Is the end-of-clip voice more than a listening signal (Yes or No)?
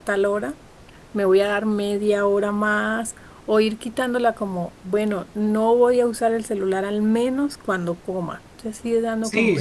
Yes